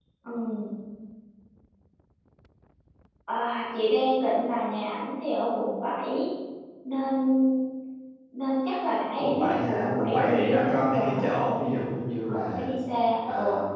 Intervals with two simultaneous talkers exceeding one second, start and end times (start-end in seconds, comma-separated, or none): 9.2-11.2